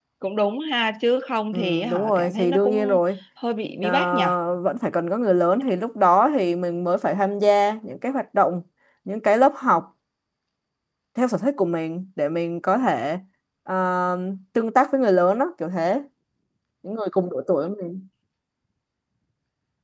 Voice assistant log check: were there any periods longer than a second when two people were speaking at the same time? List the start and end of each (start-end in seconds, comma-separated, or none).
1.5-3.0